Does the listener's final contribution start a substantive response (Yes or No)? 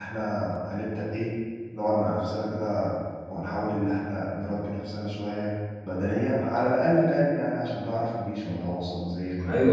Yes